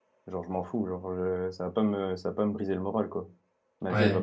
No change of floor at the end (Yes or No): No